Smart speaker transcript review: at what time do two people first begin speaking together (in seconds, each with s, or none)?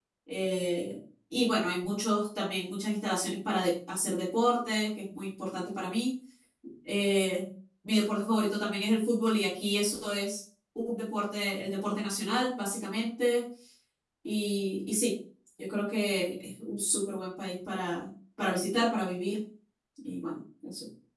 none